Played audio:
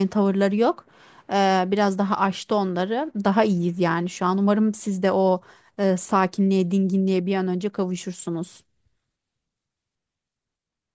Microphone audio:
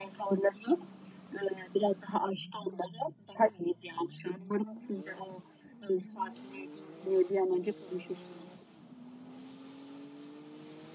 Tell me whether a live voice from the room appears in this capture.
No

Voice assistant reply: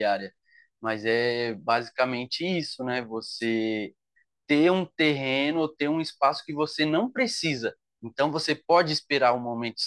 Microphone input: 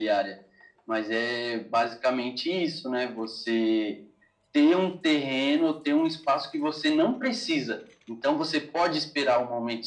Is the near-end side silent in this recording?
Yes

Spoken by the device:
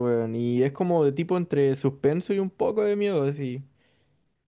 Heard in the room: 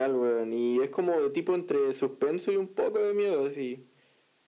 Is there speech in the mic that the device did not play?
No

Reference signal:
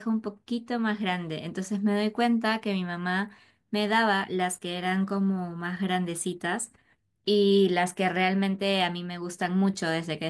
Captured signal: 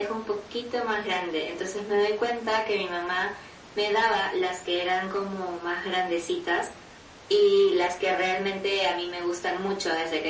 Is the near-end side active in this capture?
No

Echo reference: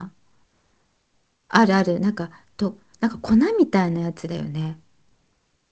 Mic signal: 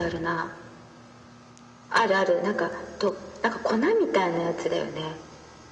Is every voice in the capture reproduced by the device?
Yes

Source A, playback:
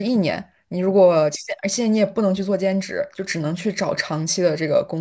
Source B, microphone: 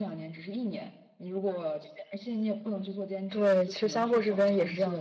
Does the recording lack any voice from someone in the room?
No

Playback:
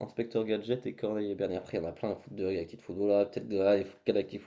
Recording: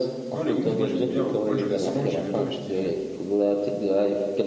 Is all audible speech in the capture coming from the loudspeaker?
No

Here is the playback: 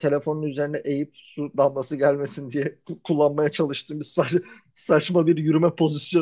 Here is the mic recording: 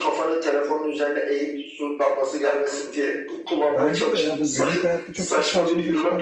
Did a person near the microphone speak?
Yes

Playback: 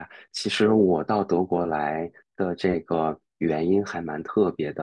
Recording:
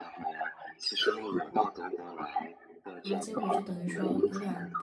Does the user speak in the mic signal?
Yes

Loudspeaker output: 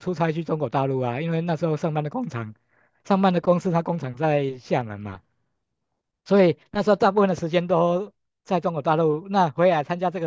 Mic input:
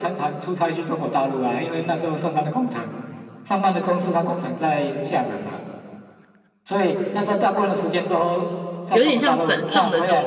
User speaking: Yes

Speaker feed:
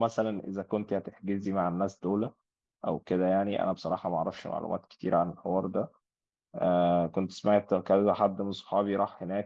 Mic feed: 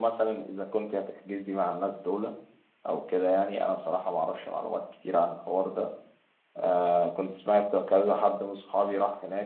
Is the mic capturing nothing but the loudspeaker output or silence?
Yes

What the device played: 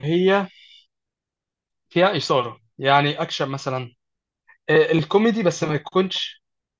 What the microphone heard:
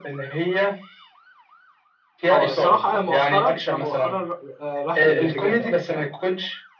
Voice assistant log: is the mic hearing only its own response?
No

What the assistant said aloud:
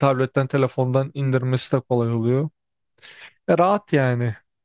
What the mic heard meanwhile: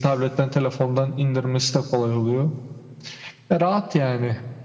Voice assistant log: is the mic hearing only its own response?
Yes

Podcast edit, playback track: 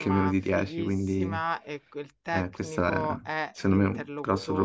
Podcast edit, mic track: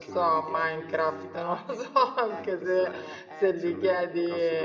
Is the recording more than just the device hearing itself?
Yes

